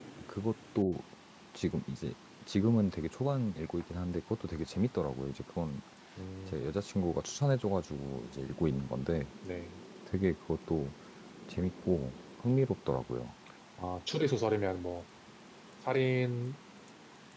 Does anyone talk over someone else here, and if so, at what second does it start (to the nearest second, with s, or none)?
none